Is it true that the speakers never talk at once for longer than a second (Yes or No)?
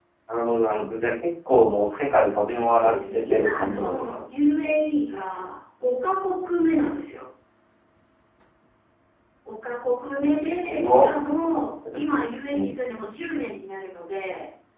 No